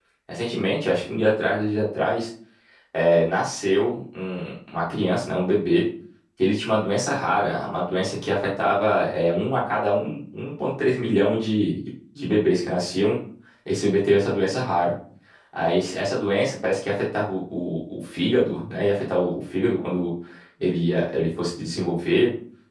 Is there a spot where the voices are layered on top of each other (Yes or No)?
No